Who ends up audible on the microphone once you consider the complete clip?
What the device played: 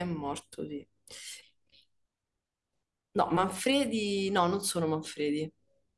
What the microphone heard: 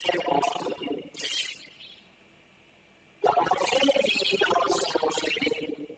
echo only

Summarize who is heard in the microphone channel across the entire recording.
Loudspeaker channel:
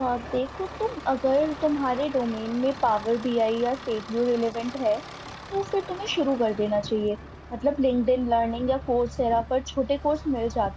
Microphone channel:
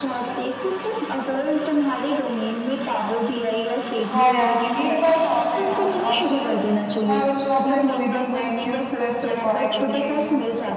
both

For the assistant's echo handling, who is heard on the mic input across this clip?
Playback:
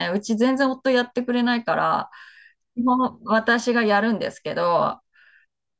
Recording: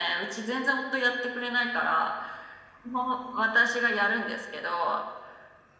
echo only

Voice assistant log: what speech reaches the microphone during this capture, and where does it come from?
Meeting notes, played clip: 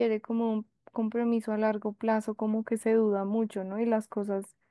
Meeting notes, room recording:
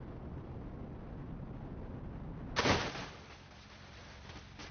neither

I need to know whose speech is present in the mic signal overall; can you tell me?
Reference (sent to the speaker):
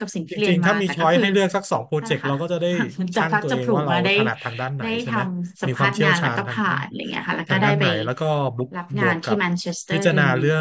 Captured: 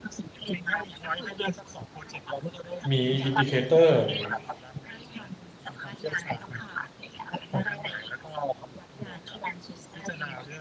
both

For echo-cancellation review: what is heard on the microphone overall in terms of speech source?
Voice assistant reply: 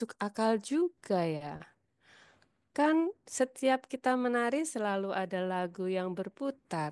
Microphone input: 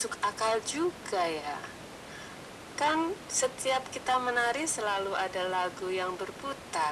echo only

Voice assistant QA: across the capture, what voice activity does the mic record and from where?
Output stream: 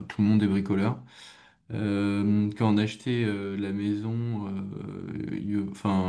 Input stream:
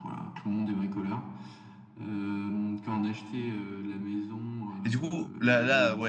both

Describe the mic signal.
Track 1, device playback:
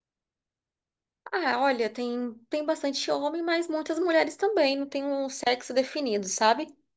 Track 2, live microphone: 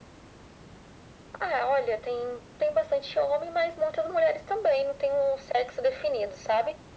echo only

